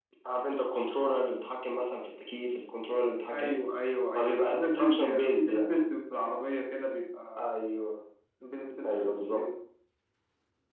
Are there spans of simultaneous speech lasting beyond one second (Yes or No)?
Yes